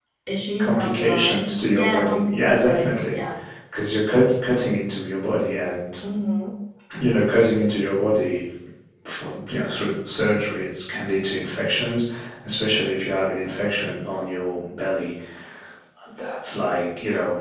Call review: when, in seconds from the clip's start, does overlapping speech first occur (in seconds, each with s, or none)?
0.6 s